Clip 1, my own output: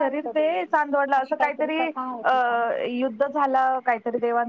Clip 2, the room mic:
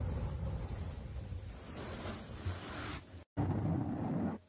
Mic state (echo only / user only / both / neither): neither